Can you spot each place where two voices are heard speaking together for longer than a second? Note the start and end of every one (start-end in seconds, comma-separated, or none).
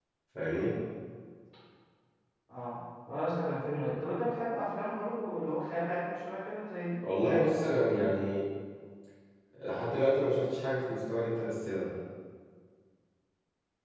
none